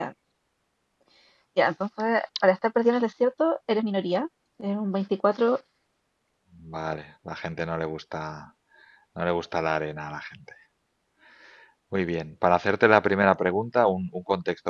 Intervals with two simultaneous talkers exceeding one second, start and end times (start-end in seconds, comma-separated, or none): none